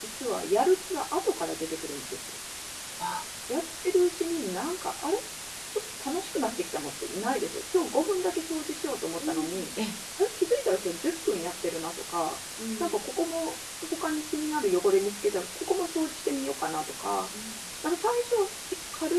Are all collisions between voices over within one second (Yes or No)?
Yes